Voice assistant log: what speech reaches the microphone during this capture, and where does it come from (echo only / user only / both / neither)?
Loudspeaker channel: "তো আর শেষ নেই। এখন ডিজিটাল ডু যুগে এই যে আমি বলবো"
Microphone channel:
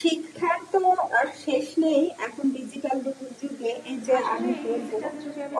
both